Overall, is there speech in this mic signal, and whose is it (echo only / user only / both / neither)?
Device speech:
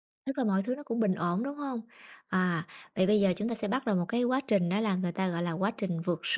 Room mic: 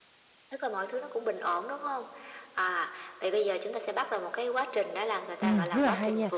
both